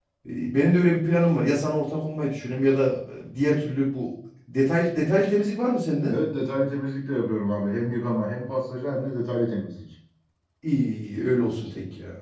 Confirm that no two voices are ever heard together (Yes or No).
Yes